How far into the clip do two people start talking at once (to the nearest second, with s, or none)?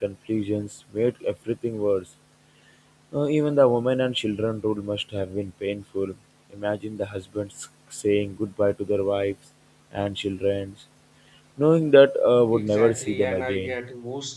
13 s